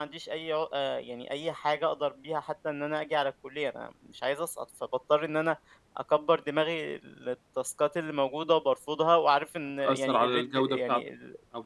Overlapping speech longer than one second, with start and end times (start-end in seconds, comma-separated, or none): 9.8-11.0